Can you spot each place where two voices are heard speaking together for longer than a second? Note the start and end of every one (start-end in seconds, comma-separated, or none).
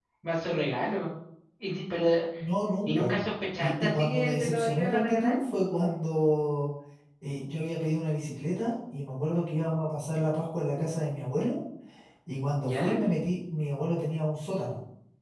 3.6-5.4